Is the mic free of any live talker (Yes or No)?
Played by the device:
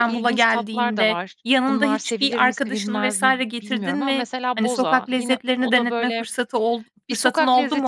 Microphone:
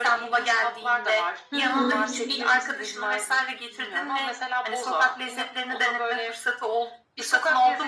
No